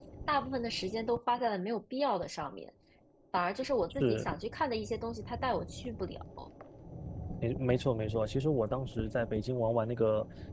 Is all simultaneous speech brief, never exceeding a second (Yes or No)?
Yes